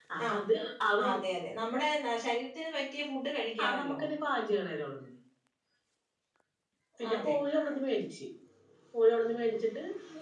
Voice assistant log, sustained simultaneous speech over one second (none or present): none